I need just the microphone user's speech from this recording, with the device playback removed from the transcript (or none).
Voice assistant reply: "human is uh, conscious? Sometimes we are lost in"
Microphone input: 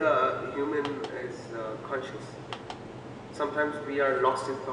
none